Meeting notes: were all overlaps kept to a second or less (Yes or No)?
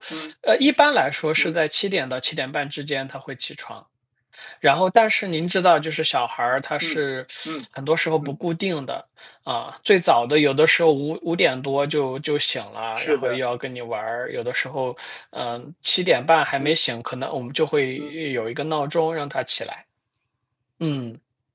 Yes